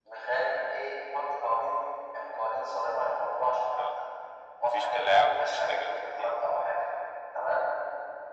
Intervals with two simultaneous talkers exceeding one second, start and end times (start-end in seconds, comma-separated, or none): 4.7-6.3